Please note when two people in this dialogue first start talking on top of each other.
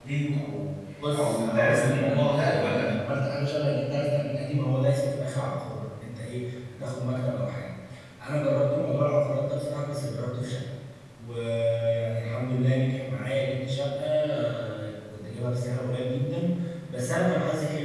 0.9 s

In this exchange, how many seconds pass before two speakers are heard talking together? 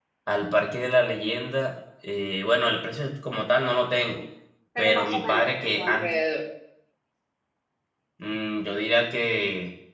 4.8 s

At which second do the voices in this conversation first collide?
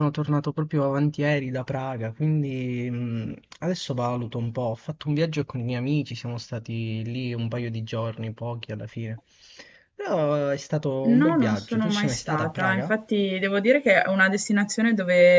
11.0 s

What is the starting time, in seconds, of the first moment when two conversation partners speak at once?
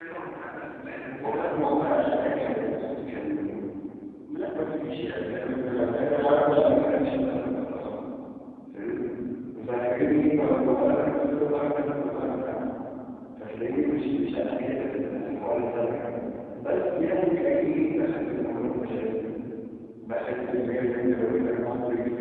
1.2 s

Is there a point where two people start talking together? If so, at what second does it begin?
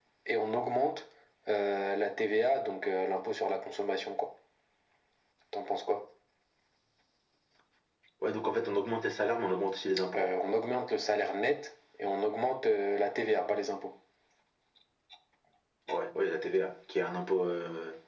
none

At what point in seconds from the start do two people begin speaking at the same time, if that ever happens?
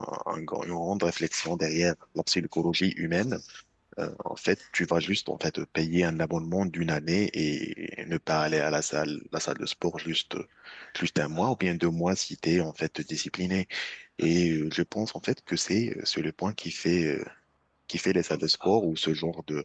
none

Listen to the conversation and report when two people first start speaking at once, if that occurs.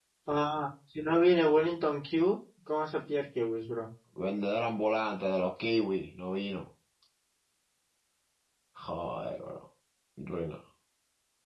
none

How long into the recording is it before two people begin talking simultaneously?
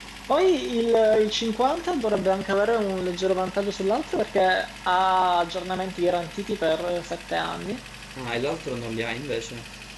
none

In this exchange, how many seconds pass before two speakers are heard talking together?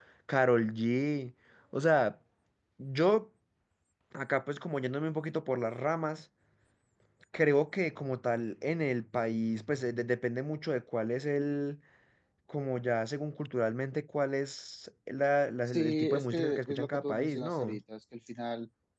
15.7 s

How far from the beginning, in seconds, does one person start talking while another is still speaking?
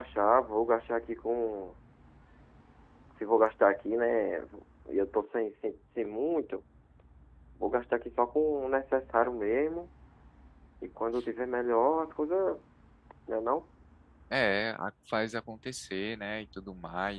none

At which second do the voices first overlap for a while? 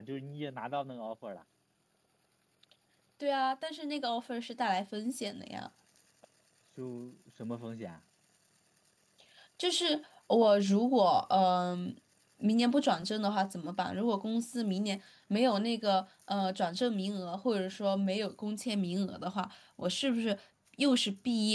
none

